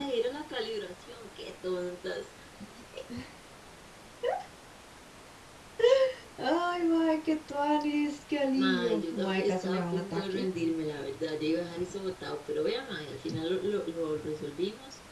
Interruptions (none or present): present